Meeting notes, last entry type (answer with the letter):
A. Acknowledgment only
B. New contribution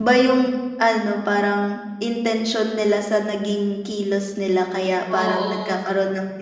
A